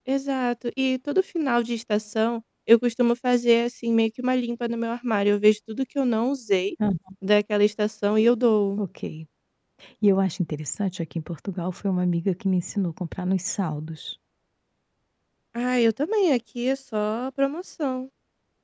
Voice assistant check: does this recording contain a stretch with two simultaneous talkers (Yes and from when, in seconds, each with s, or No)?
No